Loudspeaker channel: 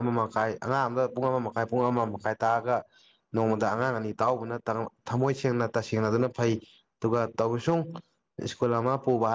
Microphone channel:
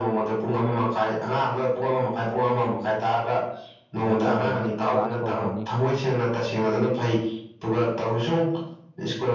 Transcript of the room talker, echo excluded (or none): ꯀꯩꯅꯣ ꯇꯧꯈ꯭ꯔꯅꯤ ꯀ꯭ꯂꯥꯁ ꯍꯧꯈ꯭ꯔꯅꯤ